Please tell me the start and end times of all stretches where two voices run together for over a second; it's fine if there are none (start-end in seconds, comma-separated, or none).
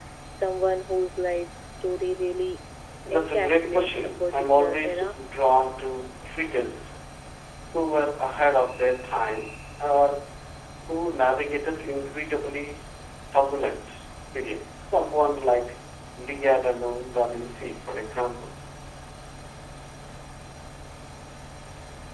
3.1-5.1